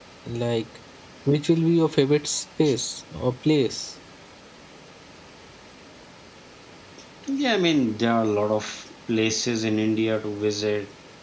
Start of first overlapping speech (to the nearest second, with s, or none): none